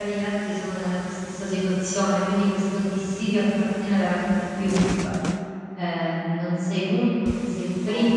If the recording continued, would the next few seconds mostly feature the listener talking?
Yes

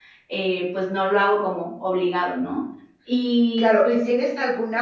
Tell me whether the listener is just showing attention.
No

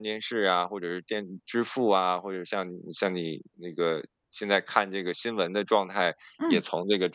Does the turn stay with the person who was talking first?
Yes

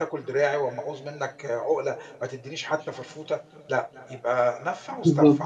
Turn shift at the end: Yes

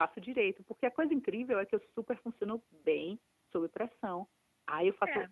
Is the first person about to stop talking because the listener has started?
No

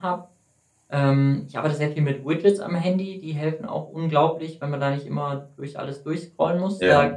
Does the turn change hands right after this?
No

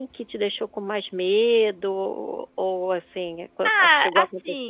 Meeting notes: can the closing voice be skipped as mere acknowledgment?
No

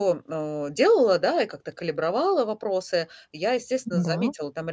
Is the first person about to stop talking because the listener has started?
No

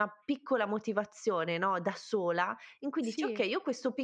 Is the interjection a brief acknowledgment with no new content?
Yes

